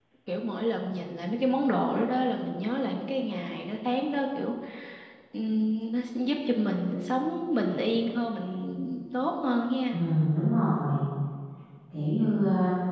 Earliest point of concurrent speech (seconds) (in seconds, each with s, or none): none